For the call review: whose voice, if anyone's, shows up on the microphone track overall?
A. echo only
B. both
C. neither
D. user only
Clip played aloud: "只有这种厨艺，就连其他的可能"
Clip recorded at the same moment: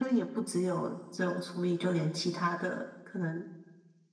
A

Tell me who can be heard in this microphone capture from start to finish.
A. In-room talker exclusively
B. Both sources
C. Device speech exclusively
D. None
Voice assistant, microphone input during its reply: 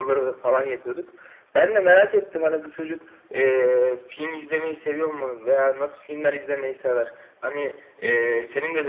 C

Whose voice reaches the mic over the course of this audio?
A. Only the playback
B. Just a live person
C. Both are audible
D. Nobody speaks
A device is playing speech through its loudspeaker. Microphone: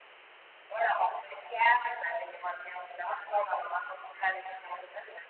A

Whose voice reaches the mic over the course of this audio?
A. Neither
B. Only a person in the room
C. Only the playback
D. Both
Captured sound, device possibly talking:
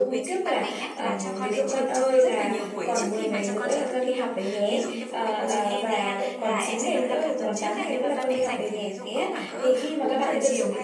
D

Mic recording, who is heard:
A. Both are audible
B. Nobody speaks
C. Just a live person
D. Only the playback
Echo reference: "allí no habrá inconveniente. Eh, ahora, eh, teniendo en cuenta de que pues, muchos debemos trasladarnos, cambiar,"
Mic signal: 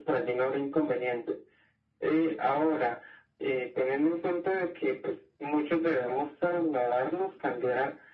D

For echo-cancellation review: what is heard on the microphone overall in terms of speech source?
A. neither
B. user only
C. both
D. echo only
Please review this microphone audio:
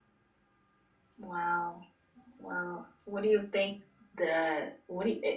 B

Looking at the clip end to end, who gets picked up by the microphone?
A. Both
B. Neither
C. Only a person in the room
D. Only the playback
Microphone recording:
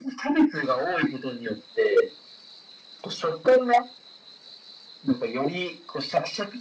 D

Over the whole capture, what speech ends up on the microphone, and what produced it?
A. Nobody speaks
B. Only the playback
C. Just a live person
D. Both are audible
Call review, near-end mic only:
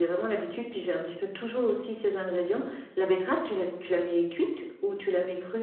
B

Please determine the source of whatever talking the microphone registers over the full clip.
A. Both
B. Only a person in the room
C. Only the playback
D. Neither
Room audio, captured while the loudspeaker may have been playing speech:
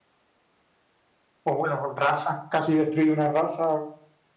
B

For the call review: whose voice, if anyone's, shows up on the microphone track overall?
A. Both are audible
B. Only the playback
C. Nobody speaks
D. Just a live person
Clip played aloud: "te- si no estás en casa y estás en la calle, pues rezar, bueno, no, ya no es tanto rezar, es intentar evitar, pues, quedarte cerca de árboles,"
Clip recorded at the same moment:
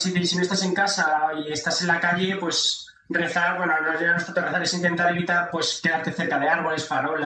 B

